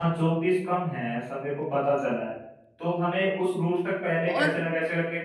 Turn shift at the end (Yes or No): No